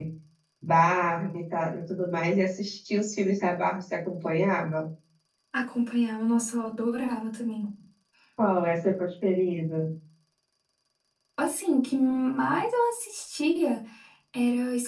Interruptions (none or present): none